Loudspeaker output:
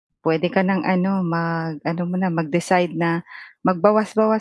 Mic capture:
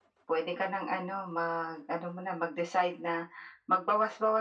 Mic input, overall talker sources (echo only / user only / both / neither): echo only